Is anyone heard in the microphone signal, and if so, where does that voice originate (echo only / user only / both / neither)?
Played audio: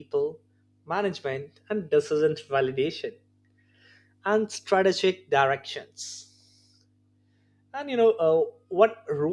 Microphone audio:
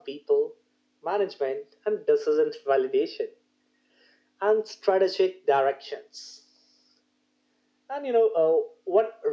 echo only